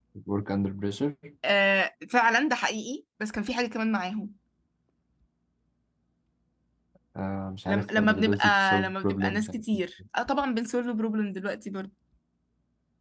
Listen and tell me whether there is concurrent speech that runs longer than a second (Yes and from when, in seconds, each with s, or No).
Yes, from 7.7 s